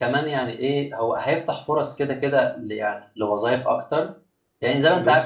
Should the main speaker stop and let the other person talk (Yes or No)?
No